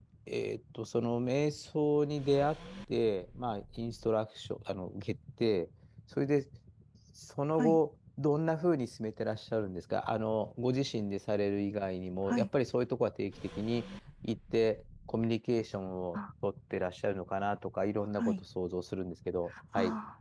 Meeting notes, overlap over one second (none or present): none